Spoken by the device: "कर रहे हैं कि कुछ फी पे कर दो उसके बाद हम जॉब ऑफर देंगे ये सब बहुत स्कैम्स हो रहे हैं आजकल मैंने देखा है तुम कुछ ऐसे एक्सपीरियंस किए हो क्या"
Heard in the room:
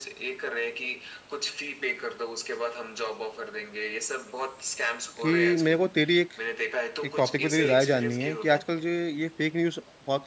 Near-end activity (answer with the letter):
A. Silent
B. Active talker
B